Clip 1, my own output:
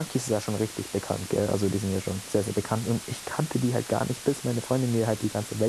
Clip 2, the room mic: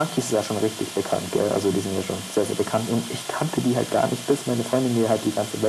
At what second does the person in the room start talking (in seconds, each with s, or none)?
none